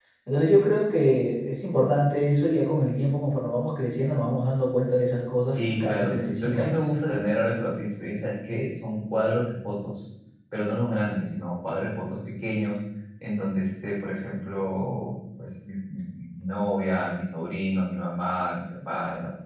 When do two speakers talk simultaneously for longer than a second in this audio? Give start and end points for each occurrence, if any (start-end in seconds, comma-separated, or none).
5.5-6.7